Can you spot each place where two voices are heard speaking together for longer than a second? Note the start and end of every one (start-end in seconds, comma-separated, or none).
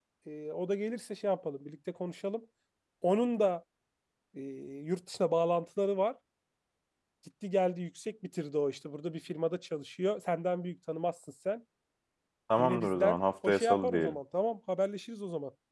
12.6-14.2